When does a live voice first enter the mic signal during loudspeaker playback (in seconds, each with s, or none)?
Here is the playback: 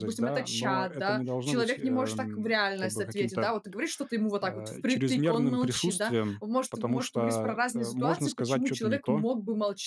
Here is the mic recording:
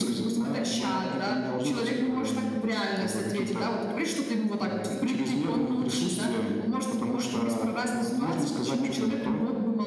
none